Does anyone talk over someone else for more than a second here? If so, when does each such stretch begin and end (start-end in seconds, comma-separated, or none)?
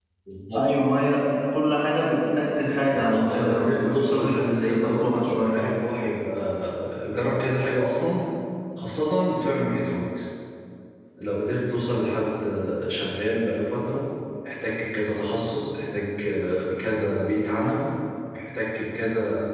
2.9-5.6